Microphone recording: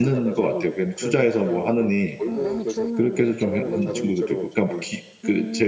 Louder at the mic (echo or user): user